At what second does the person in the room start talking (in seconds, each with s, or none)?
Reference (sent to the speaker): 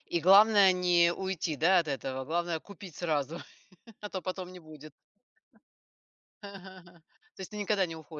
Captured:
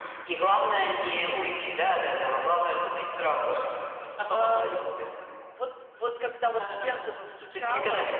4.3 s